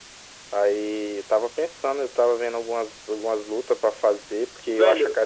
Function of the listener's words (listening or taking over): taking over